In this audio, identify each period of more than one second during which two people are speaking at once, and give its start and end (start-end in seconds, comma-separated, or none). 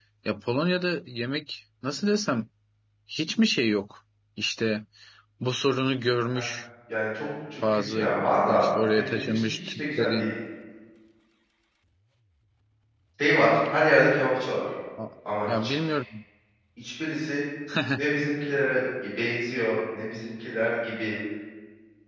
8.5-10.3